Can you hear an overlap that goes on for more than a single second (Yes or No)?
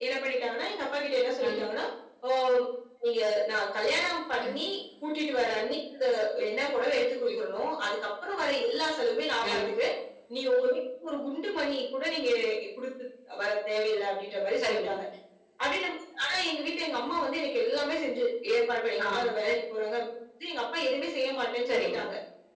No